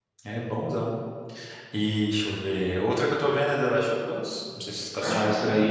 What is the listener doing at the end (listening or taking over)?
taking over